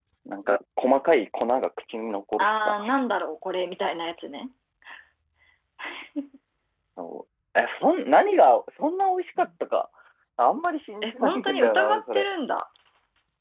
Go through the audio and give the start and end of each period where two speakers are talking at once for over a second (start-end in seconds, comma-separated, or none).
11.0-12.3